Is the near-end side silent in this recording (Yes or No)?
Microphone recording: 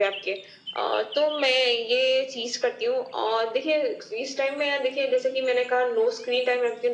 Yes